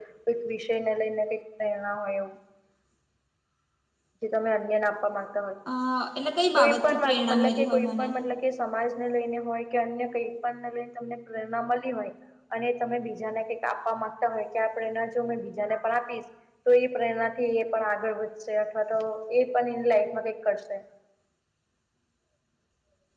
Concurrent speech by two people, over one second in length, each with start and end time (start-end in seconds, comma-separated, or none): 6.6-8.1